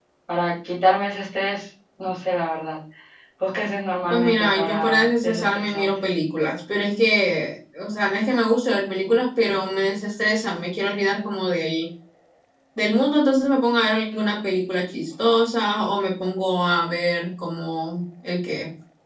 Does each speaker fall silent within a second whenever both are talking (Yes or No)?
No